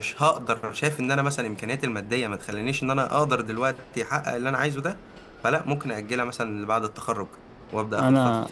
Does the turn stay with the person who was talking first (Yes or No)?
No